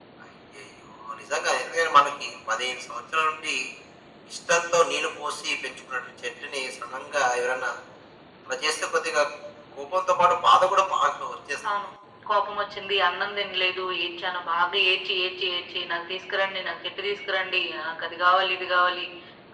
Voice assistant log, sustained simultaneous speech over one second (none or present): none